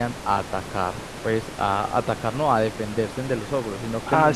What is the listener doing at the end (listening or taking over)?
taking over